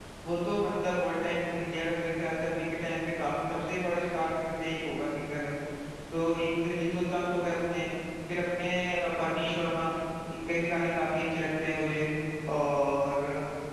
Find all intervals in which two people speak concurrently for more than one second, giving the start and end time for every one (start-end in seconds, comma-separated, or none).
none